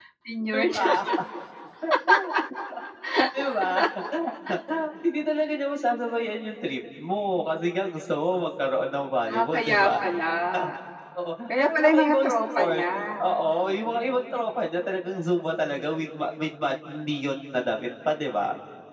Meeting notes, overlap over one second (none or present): present